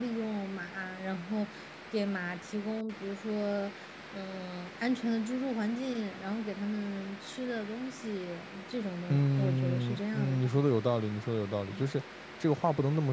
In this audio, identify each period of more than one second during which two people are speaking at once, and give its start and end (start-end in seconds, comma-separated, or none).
9.1-10.5